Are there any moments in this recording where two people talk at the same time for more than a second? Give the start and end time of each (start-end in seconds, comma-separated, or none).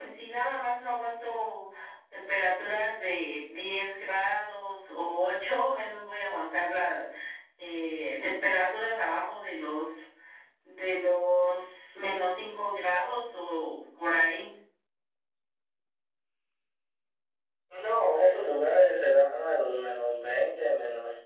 none